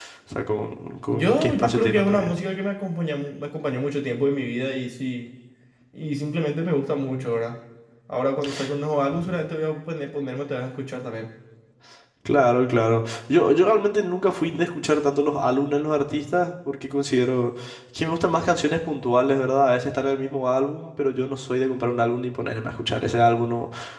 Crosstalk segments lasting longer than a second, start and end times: 1.1-2.3

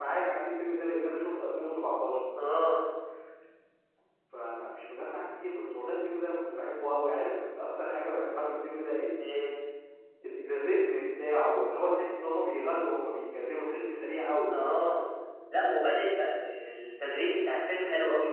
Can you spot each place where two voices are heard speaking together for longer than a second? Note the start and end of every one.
none

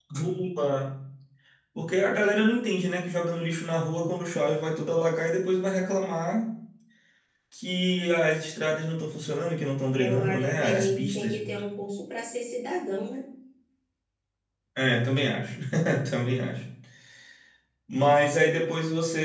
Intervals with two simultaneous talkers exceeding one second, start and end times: 9.9-11.4

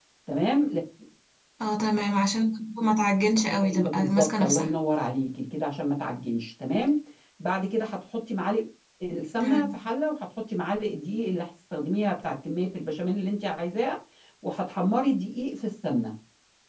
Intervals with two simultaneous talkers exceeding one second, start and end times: 3.5-4.7

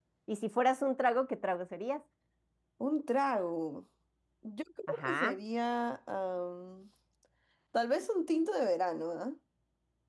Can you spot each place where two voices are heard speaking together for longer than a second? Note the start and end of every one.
none

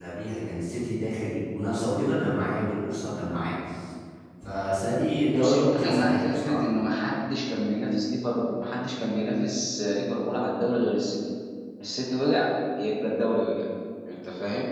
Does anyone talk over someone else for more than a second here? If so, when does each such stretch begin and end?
5.3-6.6

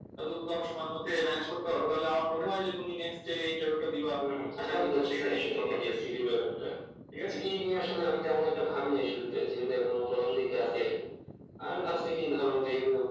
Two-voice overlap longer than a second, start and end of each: 4.6-6.0

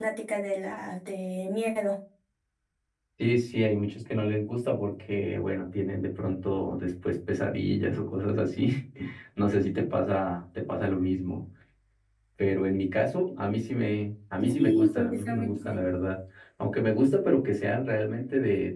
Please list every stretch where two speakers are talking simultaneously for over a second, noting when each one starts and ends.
14.4-15.8

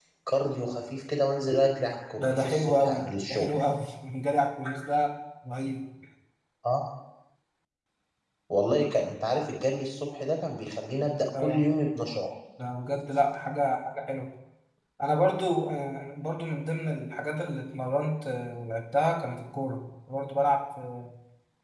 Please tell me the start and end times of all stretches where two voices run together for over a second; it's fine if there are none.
2.2-3.6

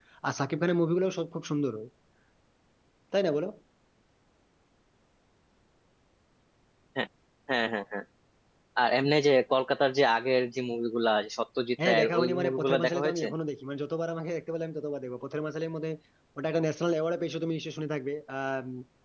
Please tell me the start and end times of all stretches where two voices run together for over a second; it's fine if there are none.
11.8-13.2

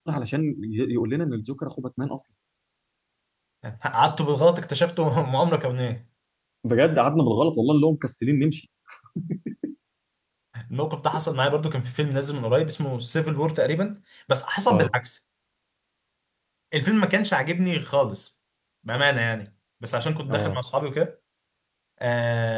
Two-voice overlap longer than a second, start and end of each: none

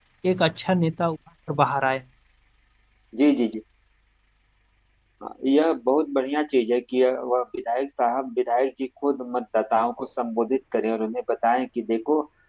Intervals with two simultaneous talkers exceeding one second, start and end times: none

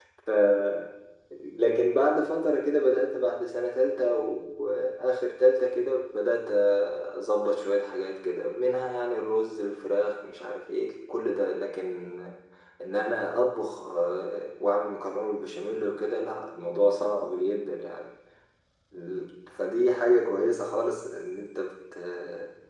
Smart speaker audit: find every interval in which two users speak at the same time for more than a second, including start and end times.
none

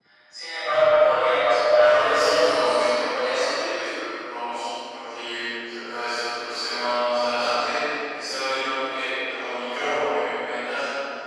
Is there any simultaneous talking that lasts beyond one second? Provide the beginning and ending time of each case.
1.8-3.5

